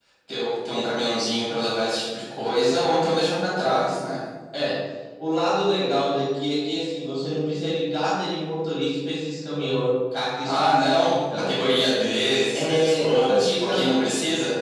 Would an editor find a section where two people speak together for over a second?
Yes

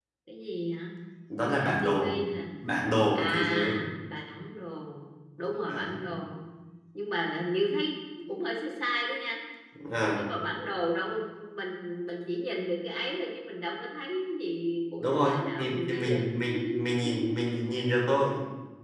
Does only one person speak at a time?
No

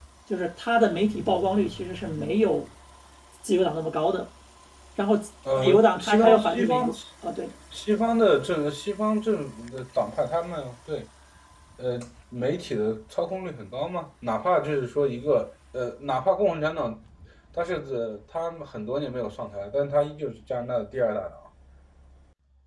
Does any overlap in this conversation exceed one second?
Yes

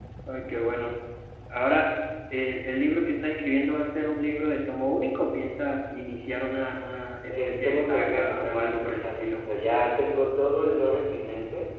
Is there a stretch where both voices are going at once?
Yes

